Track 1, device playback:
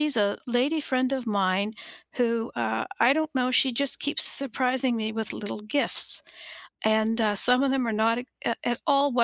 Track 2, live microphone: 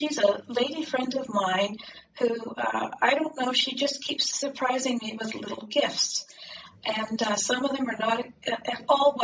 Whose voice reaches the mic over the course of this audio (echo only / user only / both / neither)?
echo only